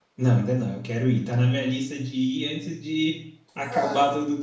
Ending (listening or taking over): listening